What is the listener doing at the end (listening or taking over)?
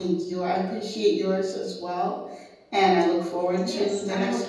taking over